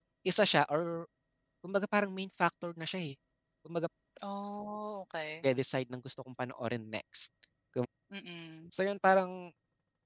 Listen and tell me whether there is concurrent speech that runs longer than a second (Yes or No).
No